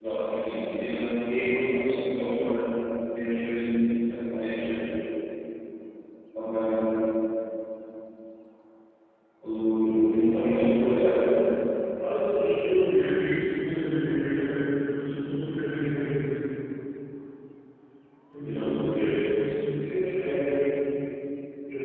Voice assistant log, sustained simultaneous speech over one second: present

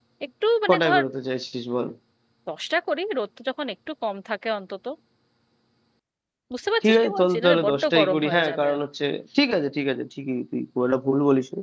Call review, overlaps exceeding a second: present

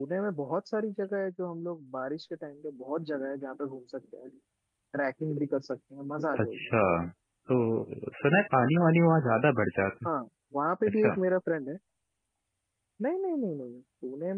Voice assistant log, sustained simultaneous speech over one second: none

